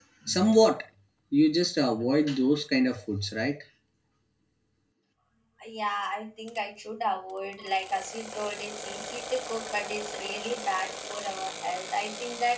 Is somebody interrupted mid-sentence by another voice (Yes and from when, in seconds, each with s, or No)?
No